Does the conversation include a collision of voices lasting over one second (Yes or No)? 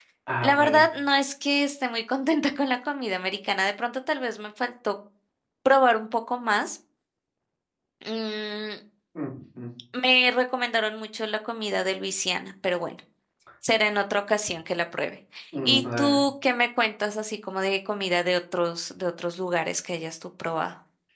No